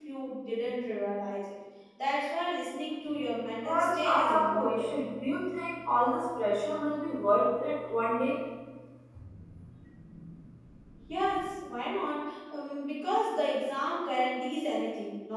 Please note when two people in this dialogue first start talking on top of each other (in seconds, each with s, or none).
3.6 s